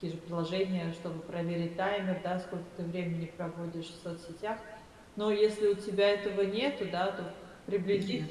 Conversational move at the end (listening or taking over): listening